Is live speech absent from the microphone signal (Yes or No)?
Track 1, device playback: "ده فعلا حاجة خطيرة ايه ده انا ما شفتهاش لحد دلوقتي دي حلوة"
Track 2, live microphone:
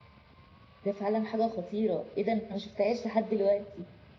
Yes